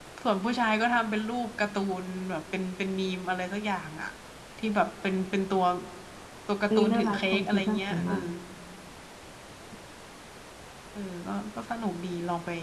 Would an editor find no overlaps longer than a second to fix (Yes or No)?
No